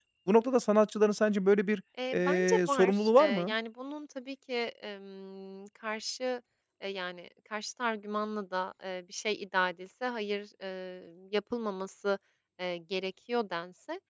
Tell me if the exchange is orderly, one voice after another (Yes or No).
No